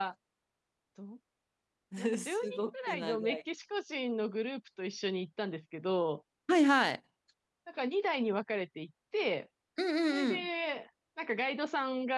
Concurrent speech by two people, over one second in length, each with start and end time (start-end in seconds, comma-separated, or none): 2.2-3.4